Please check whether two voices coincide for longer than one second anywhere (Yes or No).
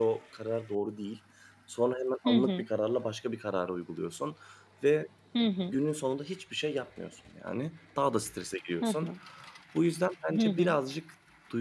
No